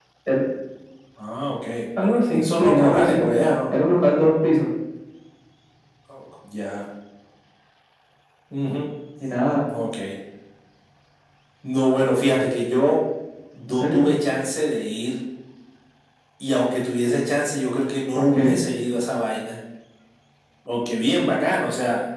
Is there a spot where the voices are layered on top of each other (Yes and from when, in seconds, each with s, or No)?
Yes, from 2.0 s